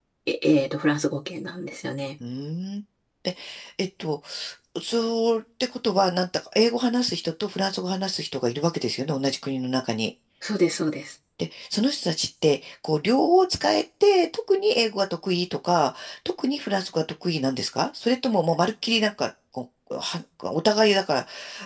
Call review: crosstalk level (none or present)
none